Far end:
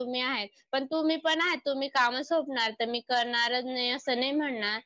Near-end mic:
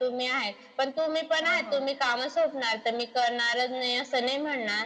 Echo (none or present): present